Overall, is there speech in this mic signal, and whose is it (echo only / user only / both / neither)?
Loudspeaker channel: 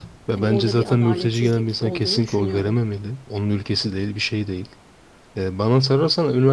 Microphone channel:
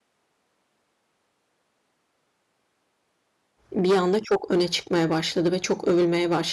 user only